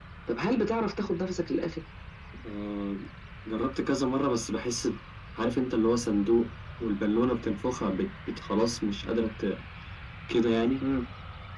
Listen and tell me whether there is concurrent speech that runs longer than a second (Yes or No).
No